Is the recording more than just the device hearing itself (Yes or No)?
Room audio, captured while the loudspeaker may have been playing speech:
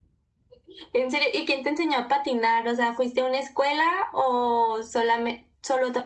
No